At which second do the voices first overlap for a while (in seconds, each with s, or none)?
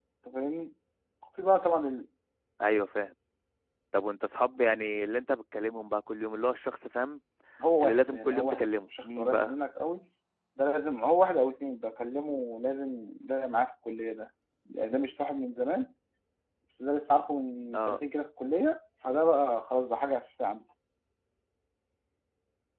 7.8 s